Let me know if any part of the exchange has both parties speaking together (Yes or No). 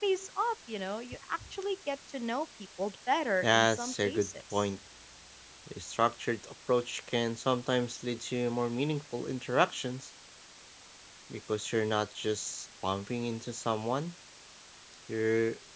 Yes